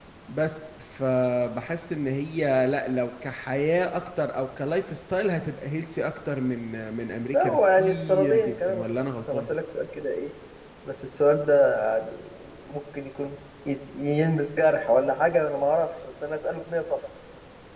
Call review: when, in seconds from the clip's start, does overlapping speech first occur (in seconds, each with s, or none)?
7.3 s